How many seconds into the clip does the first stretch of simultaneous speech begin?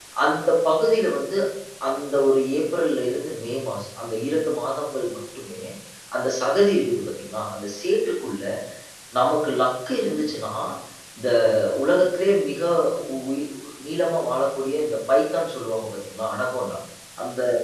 none

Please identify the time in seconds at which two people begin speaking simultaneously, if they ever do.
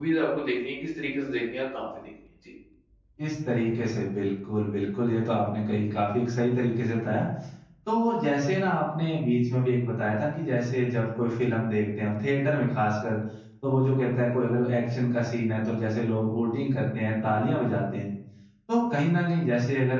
none

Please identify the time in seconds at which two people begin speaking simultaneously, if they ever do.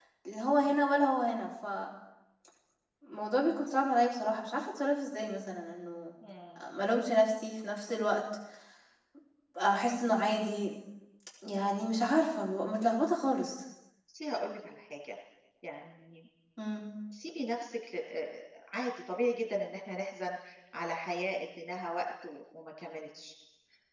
none

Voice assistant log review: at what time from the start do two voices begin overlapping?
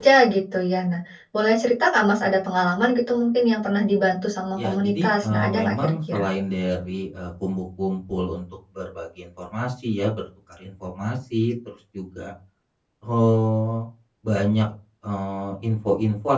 4.6 s

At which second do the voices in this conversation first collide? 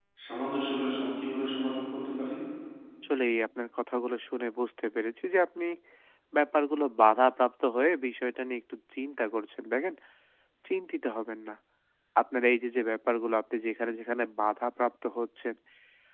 none

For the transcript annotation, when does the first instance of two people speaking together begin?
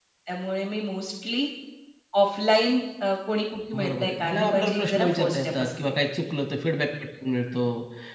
3.8 s

